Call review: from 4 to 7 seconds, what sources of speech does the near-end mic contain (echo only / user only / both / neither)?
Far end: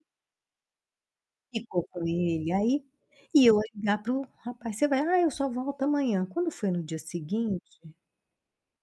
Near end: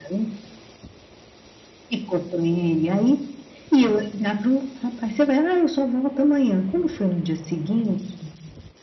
echo only